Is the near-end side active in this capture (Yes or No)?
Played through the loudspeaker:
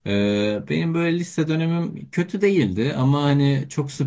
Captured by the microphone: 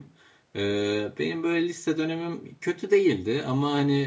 No